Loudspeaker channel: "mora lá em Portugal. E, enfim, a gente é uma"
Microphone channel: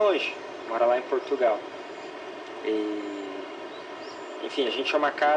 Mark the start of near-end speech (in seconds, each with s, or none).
none